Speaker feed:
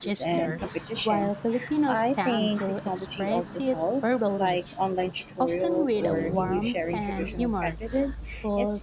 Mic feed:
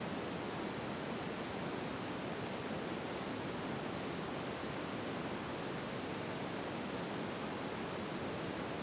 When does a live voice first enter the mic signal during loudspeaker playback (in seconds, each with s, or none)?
none